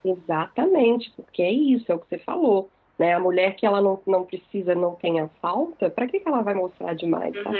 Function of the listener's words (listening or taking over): taking over